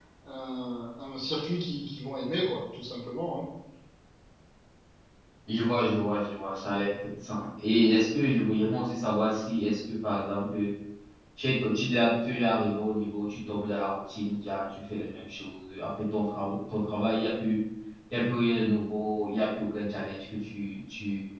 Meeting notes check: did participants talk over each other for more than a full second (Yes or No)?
No